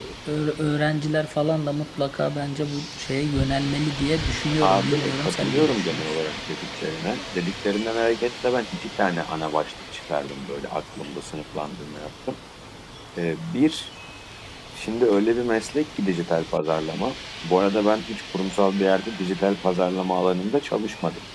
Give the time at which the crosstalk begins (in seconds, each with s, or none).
4.6 s